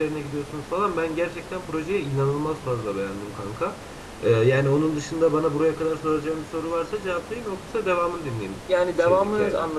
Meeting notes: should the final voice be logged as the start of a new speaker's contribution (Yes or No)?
Yes